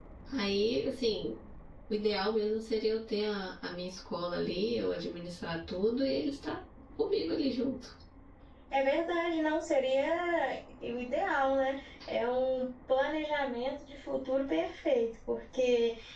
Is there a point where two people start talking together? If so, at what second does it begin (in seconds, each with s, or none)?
none